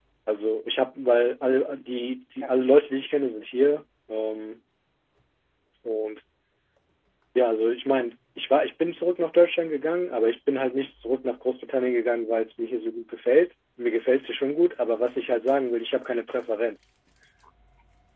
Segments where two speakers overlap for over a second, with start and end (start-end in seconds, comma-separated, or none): none